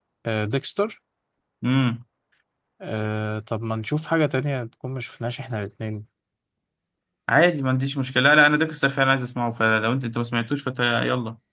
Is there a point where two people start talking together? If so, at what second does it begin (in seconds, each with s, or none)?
none